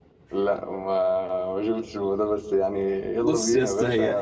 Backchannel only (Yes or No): No